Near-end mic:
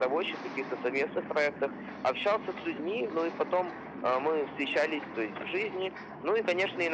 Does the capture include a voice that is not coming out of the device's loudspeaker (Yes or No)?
No